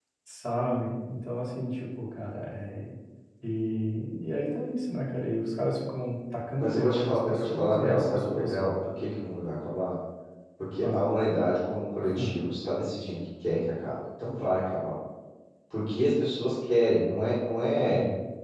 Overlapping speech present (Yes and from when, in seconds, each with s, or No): Yes, from 6.6 s